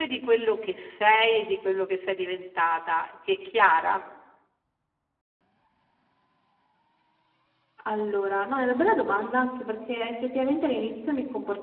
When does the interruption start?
none

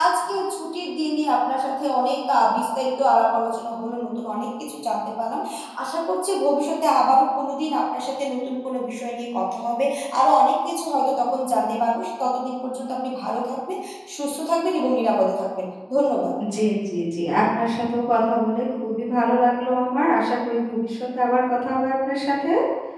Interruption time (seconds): none

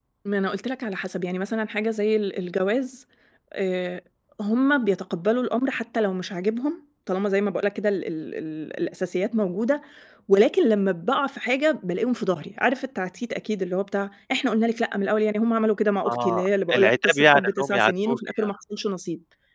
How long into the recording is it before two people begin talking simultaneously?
16.1 s

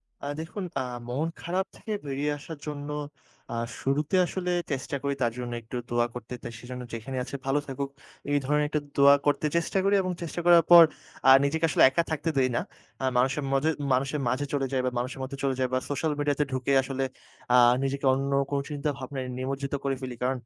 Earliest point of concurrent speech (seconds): none

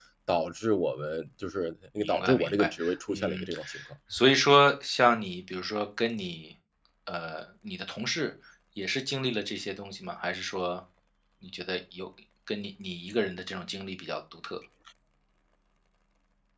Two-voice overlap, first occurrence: 2.0 s

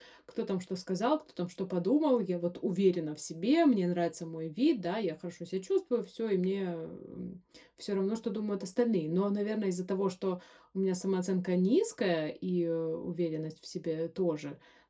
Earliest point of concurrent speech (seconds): none

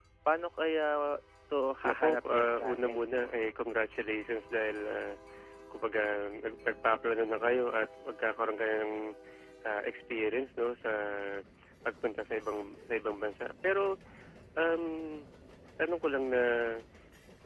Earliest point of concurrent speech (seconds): 1.9 s

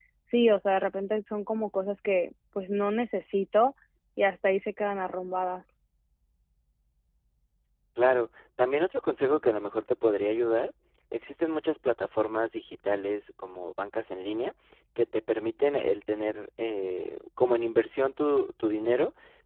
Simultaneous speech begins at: none

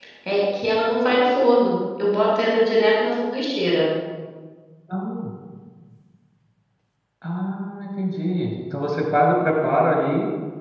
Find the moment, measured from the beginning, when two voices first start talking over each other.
none

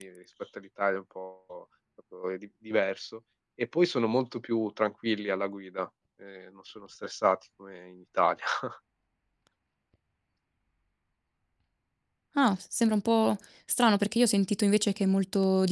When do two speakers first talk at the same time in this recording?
none

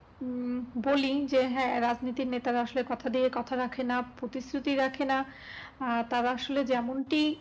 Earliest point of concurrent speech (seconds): none

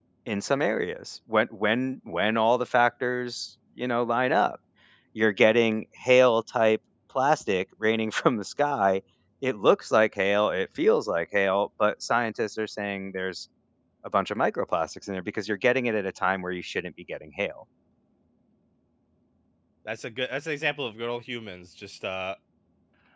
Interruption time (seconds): none

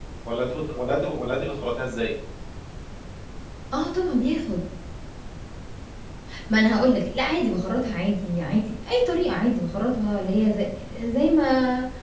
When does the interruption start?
none

